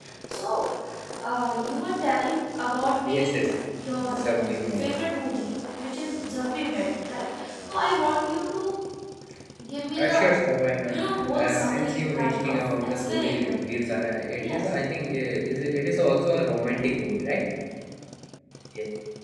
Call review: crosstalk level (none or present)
present